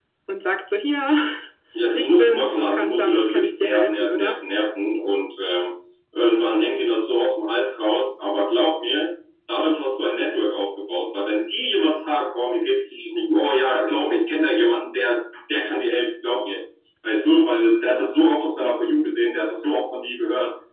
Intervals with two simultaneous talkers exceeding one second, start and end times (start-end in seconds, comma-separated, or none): 1.9-4.4